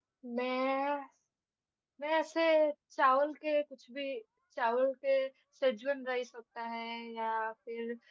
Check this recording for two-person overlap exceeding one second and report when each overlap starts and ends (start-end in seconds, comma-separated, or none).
none